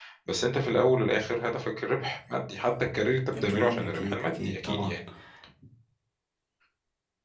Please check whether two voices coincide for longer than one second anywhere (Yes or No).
Yes